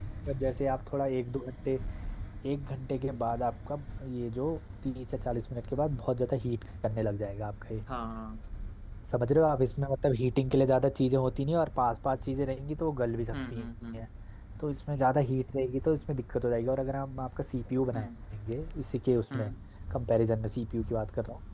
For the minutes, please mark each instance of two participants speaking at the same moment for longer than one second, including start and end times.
none

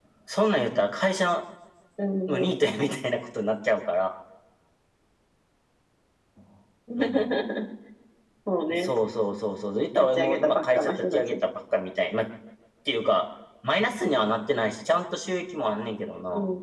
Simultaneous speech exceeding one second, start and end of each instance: 10.0-11.4

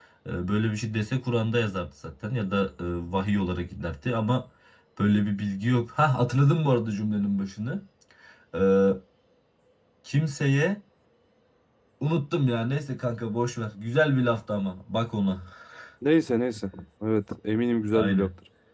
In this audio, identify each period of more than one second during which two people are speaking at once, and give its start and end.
none

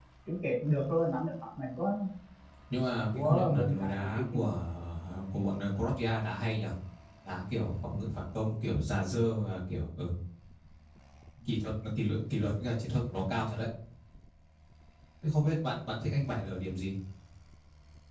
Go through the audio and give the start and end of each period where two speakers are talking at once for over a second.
3.1-4.5

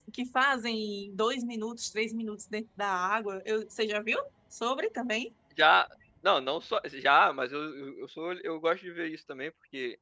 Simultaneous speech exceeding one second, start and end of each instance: none

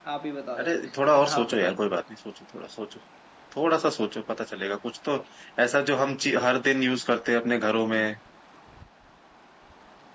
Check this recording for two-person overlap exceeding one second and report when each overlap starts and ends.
0.6-1.8

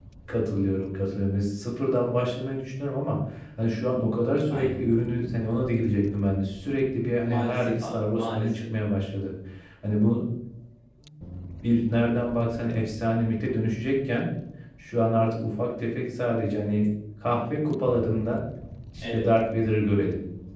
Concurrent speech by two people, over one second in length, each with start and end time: 7.2-8.6

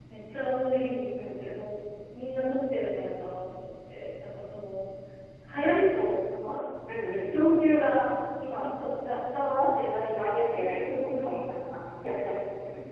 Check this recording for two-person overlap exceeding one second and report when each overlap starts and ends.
10.2-11.4

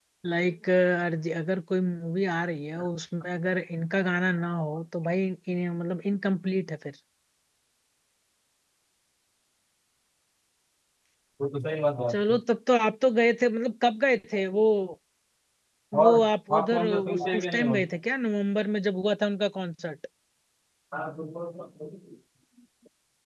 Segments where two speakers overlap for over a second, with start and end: 16.5-17.8

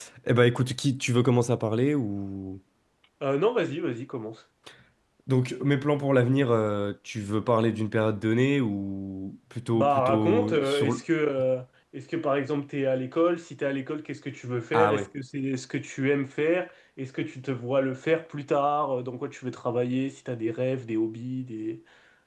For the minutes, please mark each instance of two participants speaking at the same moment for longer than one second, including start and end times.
9.7-11.0

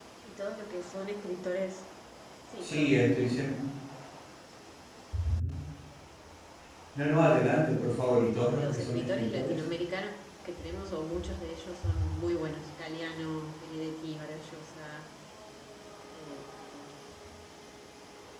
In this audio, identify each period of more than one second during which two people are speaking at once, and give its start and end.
8.3-9.6

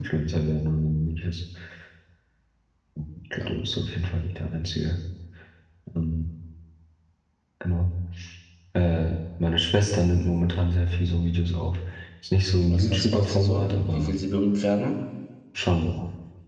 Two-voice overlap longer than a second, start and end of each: 12.7-14.2

